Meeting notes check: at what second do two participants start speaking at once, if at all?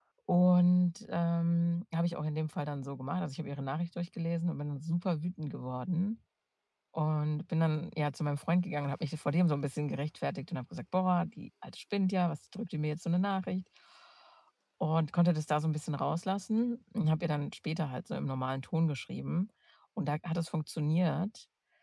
none

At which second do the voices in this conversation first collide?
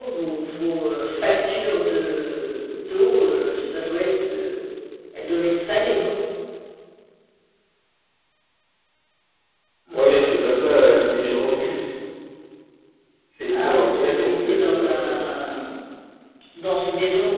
13.5 s

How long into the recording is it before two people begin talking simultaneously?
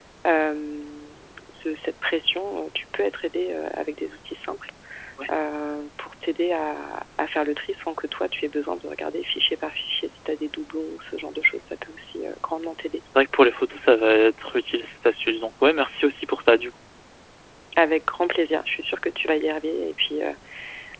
none

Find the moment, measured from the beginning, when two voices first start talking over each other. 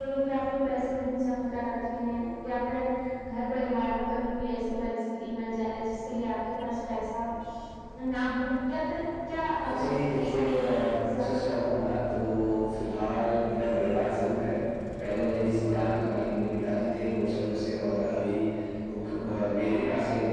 9.6 s

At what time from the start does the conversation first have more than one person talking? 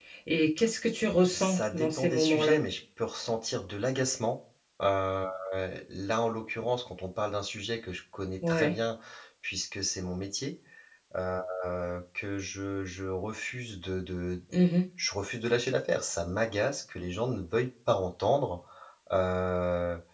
1.3 s

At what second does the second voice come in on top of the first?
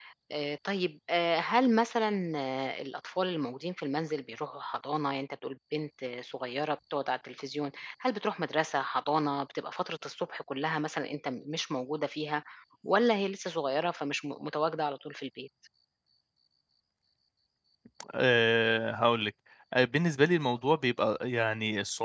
none

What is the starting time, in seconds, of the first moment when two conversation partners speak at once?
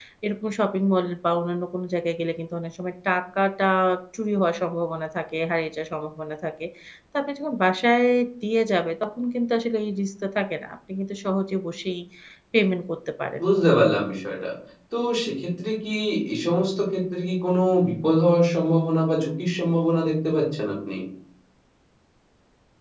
none

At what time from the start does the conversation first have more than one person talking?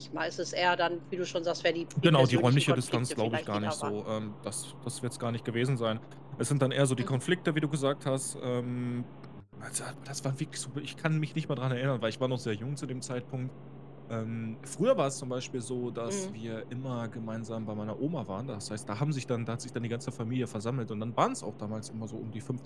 1.9 s

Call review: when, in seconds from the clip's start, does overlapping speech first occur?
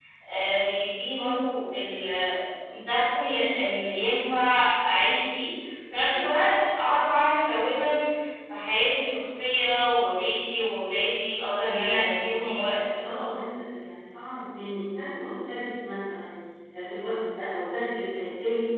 11.6 s

